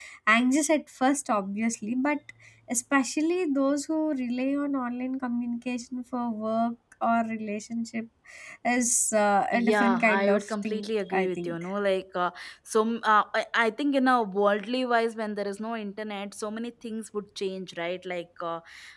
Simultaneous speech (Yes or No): Yes